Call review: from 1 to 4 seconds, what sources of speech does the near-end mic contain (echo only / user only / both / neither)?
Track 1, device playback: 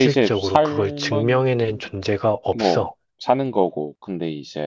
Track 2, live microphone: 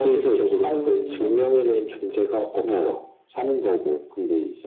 echo only